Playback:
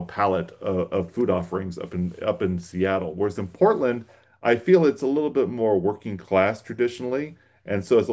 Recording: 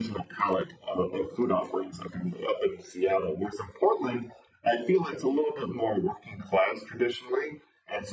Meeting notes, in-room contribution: none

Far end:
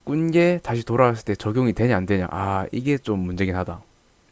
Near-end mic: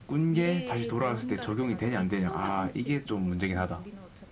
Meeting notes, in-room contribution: present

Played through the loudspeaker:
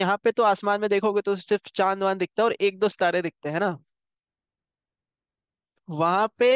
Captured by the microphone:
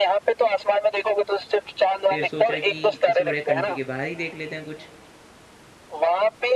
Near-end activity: present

